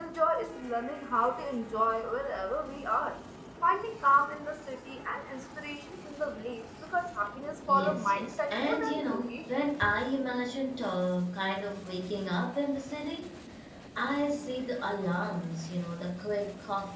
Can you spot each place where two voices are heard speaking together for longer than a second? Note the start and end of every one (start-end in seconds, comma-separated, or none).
7.7-9.4